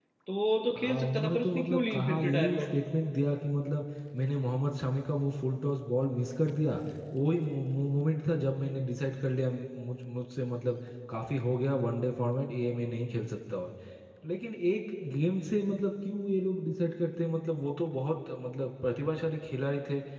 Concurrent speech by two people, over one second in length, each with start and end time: 0.8-2.6

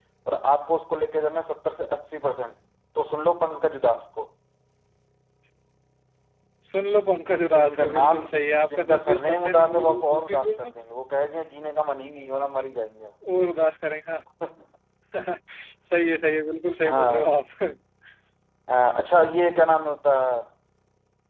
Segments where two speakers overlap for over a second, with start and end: 7.0-10.7

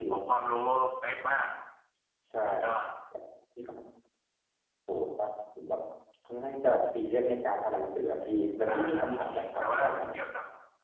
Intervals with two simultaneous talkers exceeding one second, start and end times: 8.7-10.2

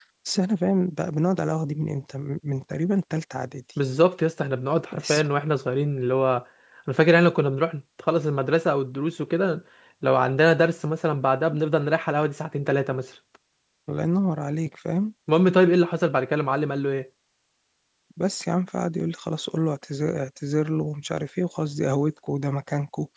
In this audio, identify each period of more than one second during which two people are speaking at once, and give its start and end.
none

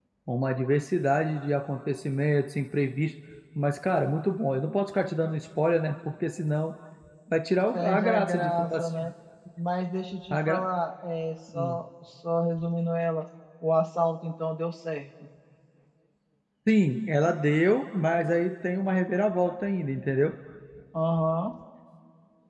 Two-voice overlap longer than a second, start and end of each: 7.7-9.1

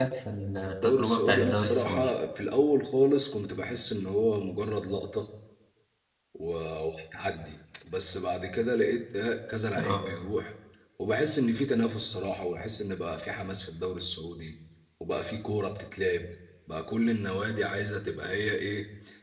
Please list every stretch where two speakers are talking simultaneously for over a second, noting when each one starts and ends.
0.6-2.0

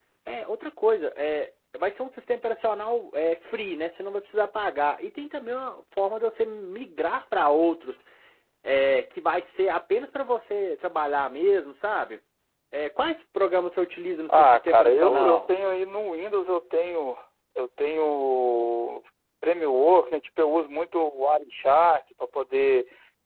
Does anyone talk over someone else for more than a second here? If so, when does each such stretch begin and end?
14.3-15.5

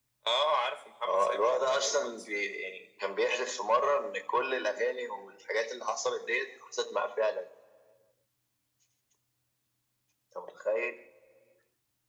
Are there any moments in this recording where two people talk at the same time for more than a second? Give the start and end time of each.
1.0-2.3

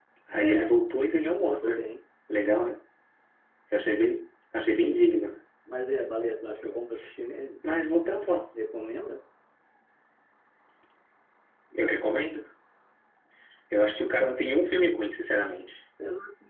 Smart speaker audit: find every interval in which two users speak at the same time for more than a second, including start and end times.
none

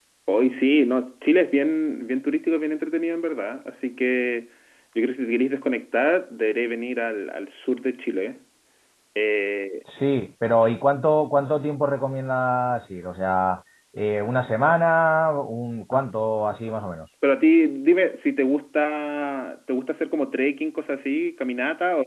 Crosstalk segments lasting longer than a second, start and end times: none

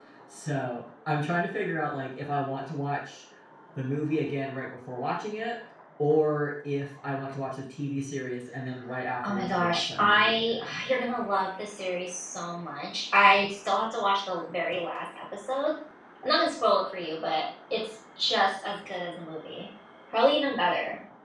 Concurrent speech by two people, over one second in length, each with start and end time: 9.3-10.9

